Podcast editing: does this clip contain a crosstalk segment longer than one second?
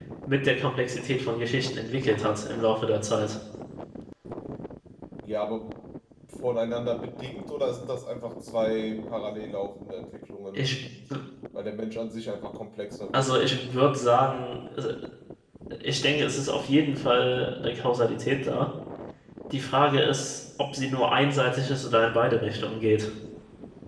No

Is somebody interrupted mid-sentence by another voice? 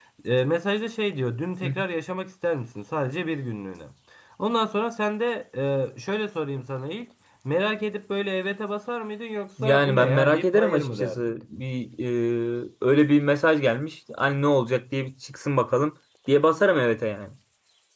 Yes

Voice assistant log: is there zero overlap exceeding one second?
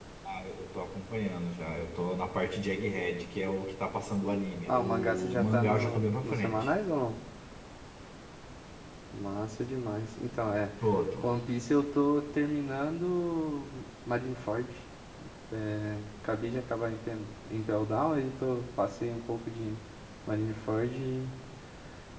No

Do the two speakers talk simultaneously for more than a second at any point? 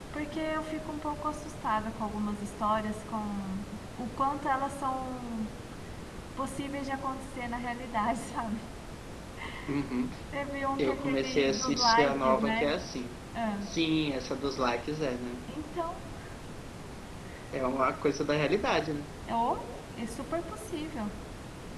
Yes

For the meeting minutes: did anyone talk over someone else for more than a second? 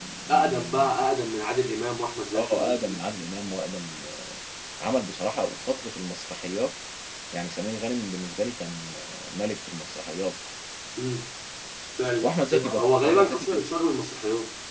Yes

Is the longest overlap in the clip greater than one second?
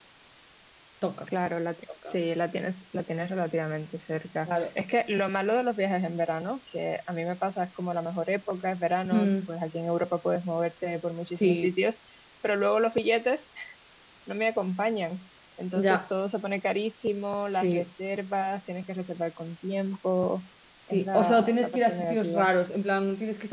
Yes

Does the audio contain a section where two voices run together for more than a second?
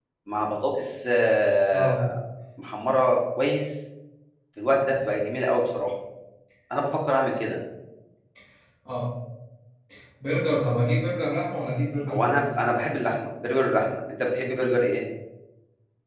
No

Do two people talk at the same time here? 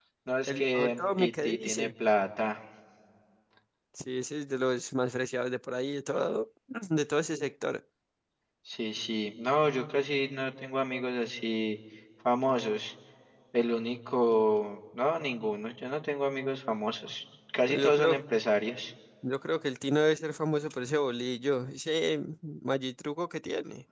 Yes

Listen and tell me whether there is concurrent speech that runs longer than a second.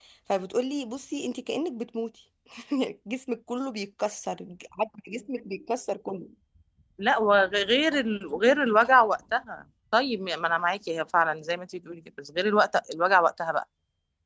No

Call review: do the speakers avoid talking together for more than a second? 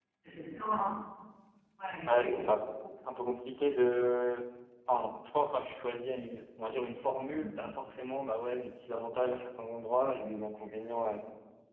Yes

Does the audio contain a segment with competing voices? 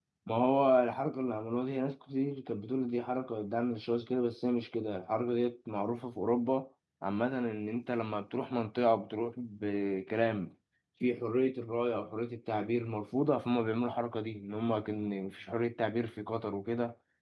No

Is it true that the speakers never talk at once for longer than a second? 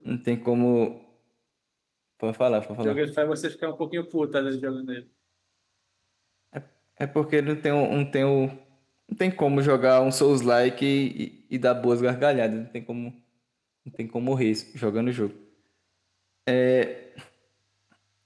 Yes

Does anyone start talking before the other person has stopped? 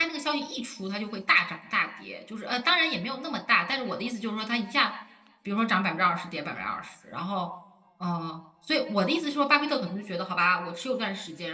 No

